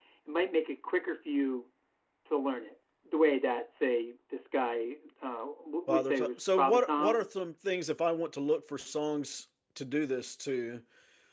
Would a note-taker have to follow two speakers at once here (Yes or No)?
Yes